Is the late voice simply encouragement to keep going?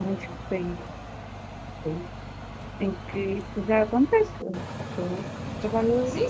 No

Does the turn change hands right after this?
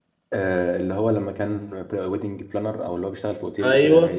Yes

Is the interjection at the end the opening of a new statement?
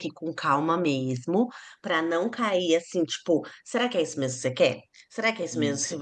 No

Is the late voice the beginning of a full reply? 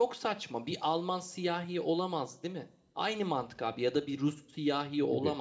No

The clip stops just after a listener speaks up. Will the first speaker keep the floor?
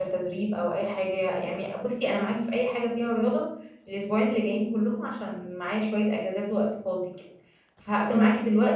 Yes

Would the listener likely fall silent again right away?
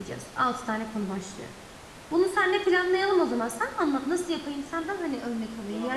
Yes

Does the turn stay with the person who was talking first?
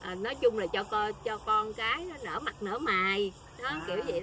No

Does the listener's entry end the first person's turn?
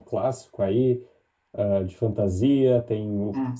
No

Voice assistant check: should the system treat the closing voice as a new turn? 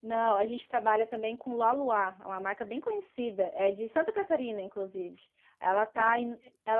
No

